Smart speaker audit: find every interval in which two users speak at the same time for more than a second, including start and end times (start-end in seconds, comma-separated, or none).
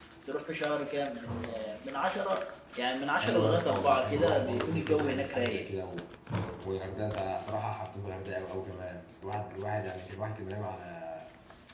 3.2-5.7